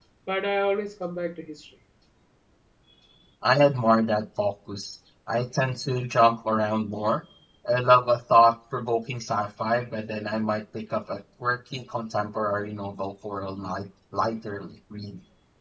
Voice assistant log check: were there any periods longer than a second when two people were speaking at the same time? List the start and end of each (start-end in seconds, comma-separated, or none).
none